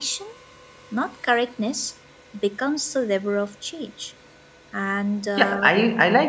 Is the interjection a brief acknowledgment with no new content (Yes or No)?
No